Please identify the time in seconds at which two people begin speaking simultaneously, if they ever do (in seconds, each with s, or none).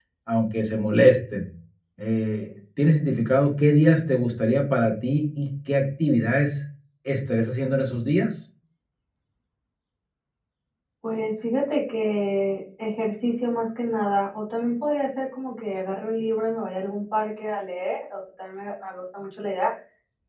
none